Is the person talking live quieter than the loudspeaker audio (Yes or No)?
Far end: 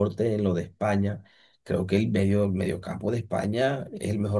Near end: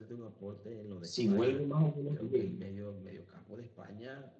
No